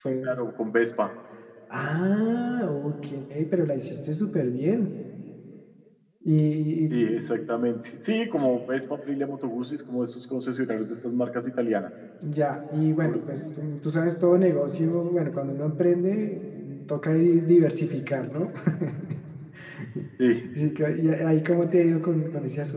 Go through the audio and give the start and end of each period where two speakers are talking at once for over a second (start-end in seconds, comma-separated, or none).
none